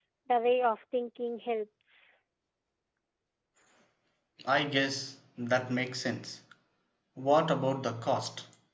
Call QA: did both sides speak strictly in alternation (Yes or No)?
Yes